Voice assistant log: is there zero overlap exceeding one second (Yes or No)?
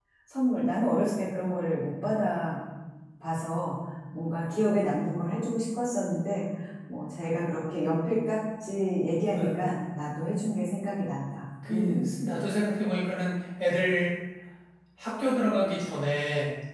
Yes